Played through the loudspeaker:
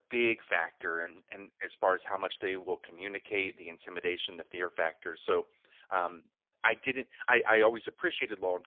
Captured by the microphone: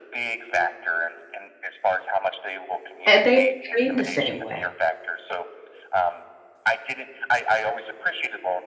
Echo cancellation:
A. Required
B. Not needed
A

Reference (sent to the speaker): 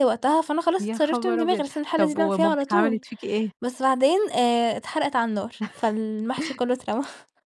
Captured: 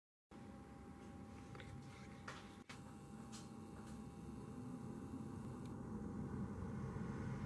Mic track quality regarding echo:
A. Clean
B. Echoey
A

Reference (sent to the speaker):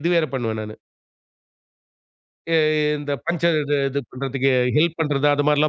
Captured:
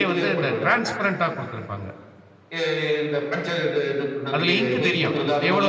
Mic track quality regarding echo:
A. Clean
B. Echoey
B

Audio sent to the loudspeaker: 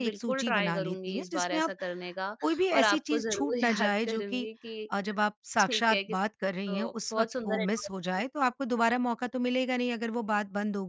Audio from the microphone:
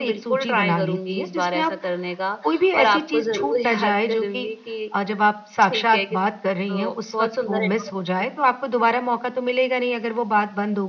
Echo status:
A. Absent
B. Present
B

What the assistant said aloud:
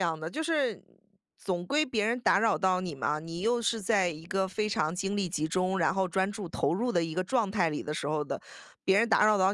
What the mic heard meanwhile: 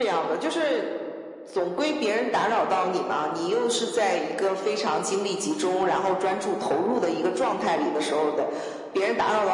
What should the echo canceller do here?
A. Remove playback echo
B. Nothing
A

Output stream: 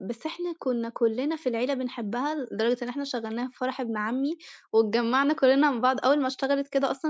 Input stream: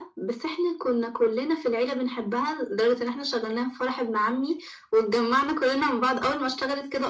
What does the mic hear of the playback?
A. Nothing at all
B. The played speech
B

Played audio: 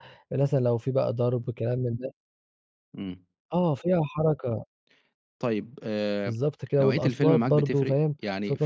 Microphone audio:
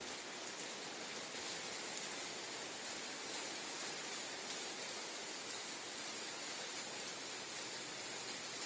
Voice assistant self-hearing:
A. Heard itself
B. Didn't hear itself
B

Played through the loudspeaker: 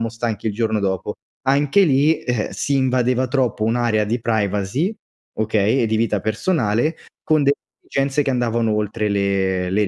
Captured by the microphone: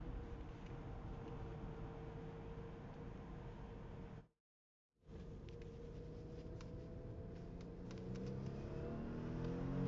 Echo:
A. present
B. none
B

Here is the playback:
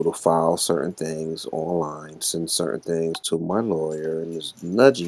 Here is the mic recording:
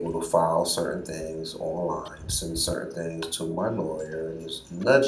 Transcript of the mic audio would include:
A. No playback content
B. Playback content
B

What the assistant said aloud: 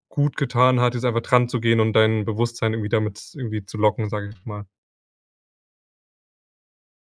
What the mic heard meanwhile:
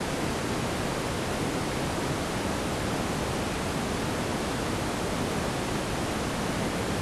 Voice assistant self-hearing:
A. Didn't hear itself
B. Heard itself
A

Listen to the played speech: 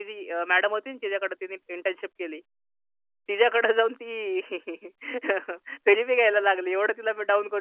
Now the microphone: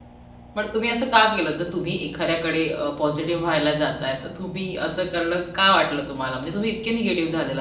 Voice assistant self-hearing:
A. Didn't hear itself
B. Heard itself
A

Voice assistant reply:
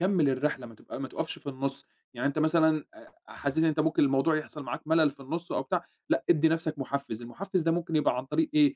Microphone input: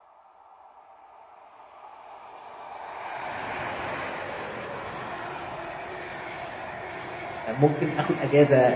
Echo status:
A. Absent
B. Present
A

